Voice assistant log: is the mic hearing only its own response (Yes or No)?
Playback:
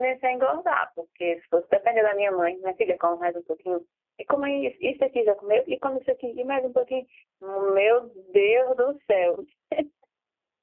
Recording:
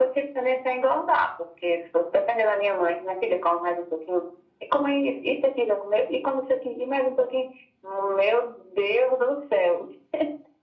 Yes